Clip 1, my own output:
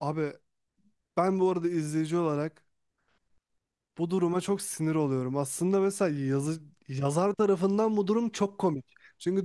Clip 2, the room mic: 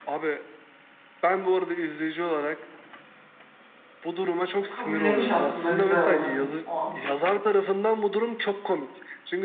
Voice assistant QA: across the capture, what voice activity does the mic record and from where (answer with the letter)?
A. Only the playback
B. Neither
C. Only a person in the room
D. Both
D